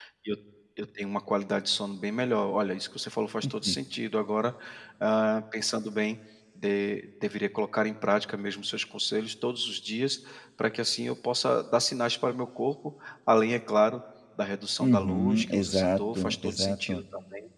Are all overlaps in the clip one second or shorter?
No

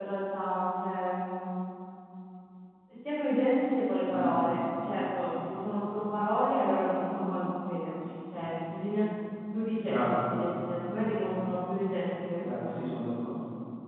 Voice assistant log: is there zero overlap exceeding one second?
Yes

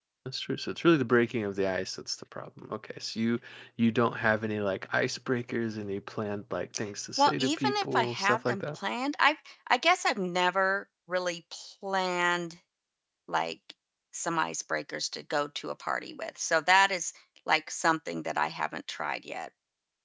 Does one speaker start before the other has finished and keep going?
Yes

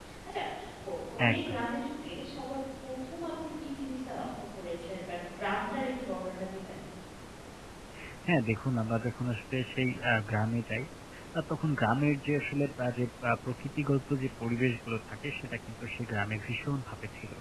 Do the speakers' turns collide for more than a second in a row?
No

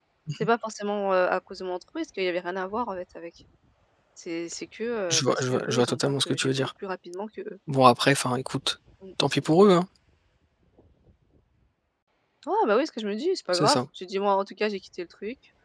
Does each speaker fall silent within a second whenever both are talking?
No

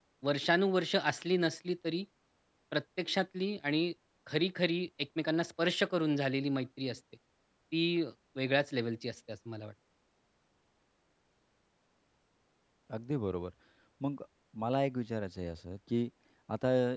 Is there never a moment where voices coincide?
Yes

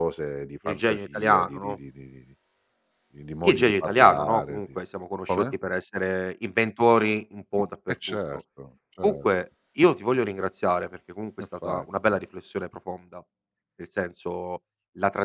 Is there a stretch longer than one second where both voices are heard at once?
Yes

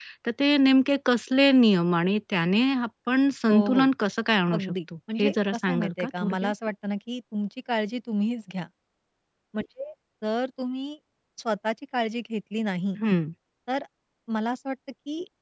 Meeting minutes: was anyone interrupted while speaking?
Yes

